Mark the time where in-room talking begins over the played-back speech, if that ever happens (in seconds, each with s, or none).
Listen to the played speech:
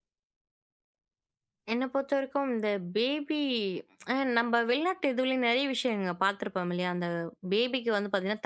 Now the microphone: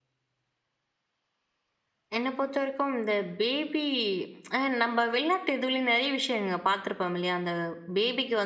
none